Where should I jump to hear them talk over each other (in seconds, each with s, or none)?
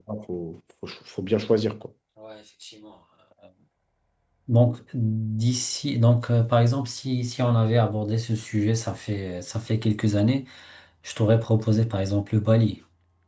none